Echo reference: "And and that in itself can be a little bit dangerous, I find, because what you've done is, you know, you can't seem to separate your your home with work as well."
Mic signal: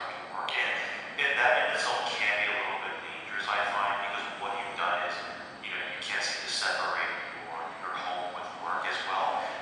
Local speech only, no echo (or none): none